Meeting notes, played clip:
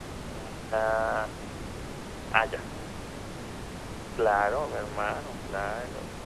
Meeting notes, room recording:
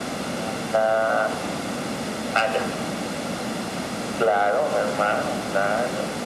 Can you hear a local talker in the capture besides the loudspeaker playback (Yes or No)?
No